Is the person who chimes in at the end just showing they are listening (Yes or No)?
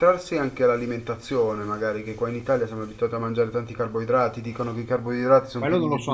No